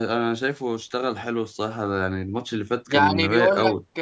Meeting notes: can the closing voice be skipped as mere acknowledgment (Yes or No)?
No